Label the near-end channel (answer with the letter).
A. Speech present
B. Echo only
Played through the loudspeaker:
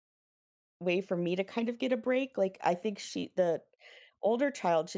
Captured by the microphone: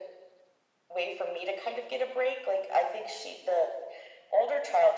B